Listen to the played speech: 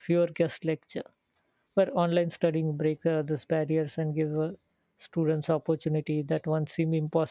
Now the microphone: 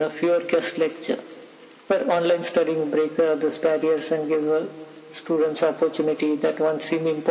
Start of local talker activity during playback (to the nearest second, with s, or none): none